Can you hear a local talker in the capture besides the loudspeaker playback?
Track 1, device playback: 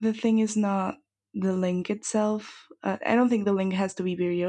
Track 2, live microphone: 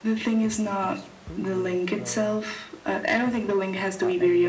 Yes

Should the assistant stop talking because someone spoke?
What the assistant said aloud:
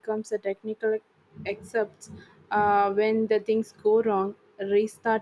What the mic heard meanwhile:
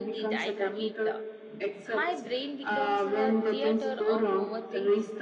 Yes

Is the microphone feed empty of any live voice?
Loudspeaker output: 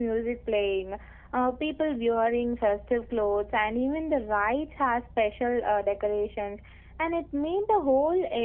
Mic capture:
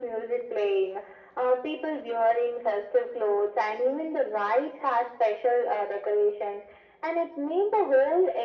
Yes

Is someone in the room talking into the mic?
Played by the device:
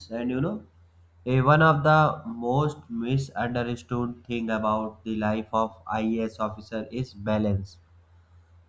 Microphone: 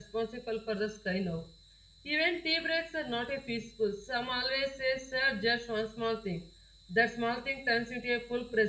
Yes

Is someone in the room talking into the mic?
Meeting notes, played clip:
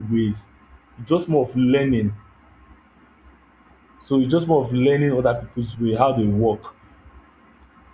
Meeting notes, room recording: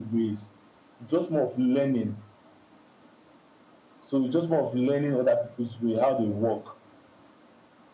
No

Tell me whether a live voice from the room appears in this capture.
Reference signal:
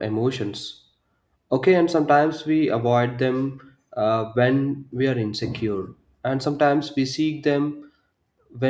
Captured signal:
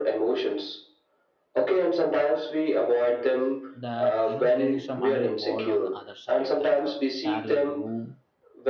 Yes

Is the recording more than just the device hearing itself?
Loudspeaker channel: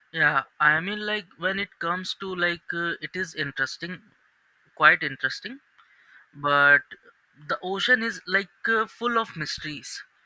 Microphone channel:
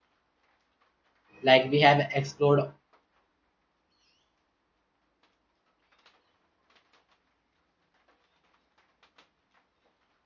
Yes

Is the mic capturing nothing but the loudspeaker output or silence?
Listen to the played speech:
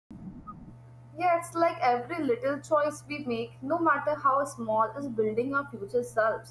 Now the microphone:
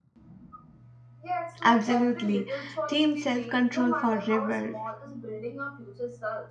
No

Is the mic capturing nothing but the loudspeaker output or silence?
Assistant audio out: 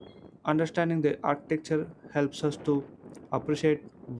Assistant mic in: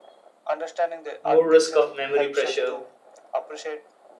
No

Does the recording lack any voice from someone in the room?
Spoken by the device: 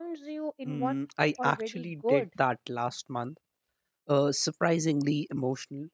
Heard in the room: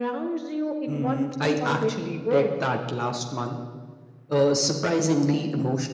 Yes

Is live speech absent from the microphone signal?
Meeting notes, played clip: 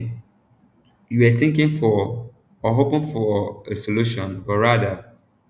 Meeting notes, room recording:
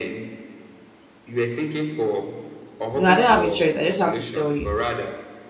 No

